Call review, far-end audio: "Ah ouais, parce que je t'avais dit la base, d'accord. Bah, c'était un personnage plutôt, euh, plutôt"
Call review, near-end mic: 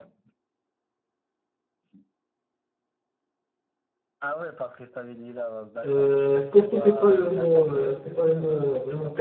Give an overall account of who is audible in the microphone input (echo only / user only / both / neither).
both